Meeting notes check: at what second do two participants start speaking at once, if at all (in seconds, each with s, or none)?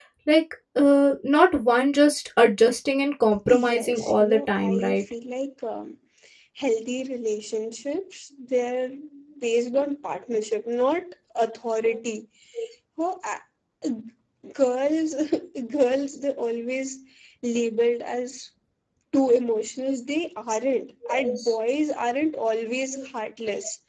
3.5 s